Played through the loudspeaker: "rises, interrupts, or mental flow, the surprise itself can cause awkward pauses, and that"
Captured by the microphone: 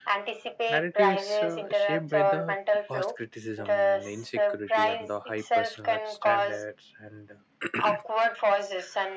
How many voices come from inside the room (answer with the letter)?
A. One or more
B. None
A